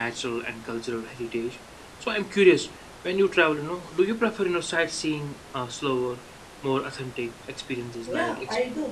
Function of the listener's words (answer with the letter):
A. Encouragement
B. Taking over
B